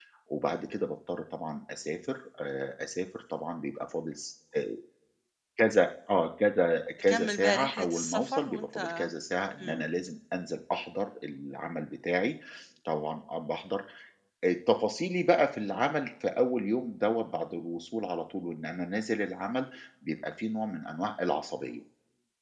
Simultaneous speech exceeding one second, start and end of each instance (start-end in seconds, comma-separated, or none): 7.1-9.1